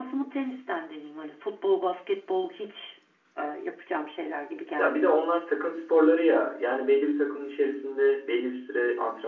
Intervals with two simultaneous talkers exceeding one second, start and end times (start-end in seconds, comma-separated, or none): none